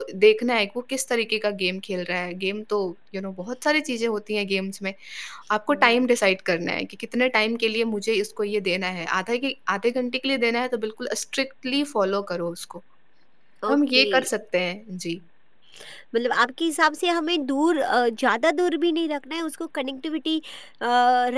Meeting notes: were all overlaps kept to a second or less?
Yes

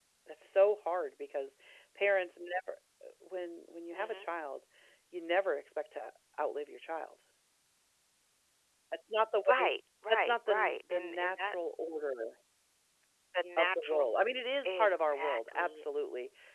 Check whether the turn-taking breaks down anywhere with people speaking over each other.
Yes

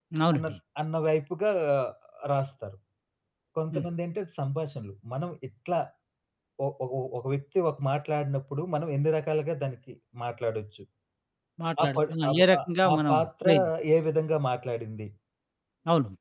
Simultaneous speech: Yes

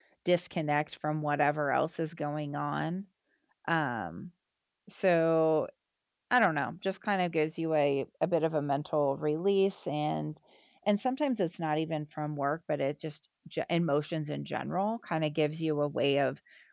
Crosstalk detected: No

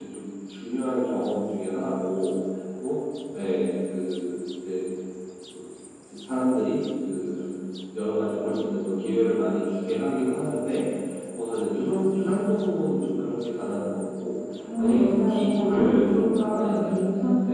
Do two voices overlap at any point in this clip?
Yes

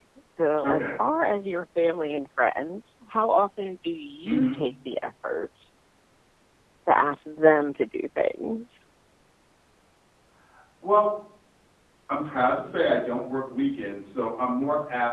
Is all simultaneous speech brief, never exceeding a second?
Yes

